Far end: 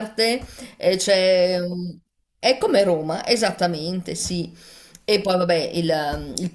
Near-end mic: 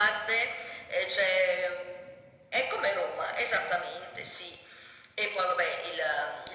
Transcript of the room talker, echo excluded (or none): none